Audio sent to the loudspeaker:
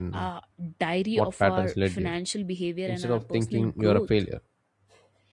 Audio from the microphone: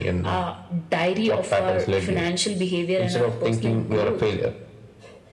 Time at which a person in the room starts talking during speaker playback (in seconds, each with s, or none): none